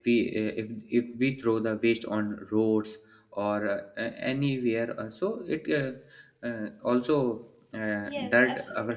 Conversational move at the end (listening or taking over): taking over